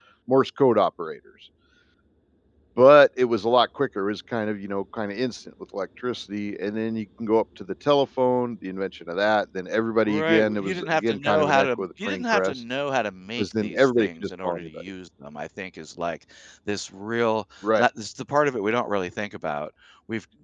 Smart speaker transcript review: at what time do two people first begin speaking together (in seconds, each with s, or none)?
10.1 s